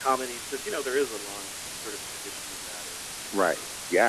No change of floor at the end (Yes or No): No